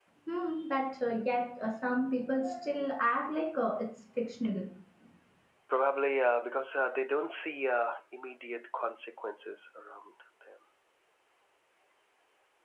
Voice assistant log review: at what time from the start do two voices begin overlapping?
none

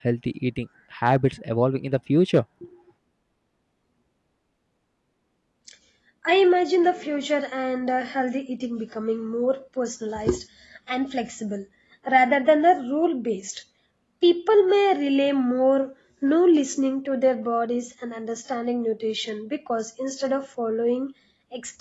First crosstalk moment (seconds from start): none

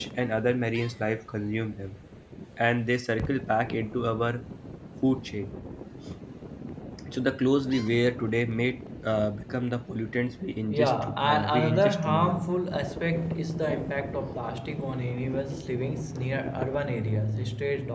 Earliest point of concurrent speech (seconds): 11 s

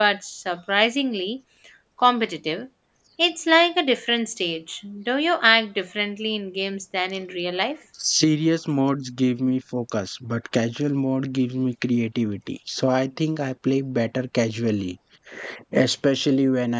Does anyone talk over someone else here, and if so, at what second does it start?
none

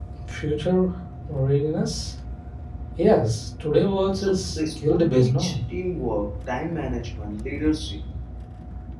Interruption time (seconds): 4 s

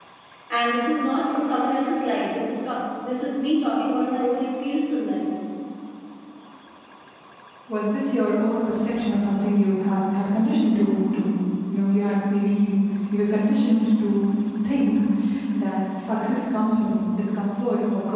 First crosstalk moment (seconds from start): none

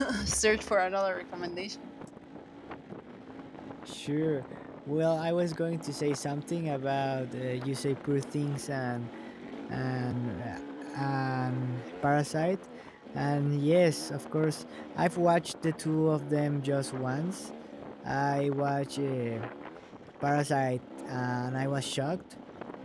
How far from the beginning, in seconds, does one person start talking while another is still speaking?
none

